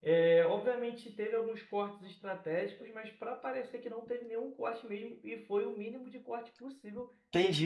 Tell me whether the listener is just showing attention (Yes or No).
No